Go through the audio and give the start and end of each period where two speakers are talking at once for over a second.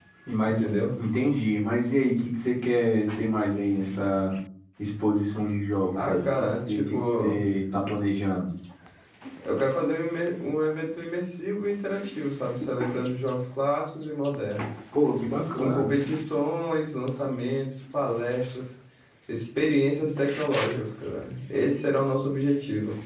6.0-7.4

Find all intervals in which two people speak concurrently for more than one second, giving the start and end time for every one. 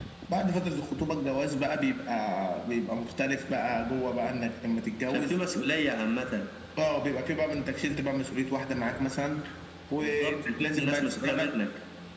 10.0-11.5

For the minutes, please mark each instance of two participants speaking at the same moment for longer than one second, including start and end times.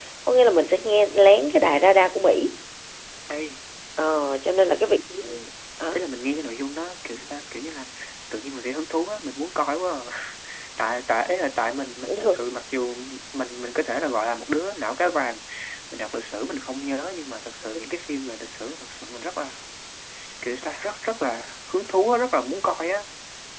none

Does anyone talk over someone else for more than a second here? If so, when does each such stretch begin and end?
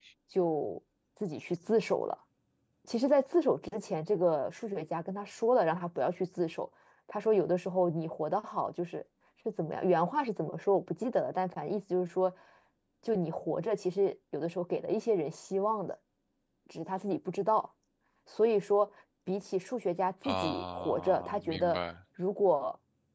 20.2-21.8

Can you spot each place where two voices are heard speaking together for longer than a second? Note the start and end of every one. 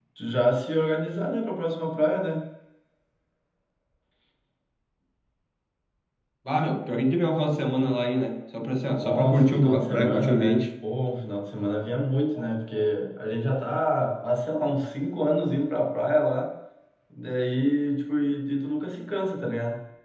9.0-10.6

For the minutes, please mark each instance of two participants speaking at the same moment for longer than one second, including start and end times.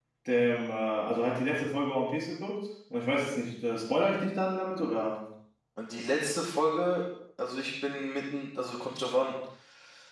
none

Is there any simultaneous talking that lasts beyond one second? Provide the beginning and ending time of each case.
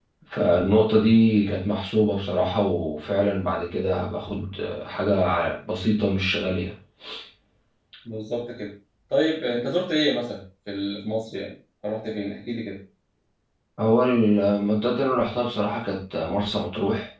none

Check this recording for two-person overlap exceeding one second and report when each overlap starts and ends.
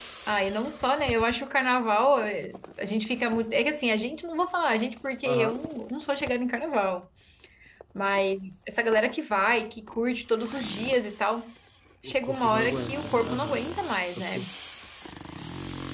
12.0-13.6

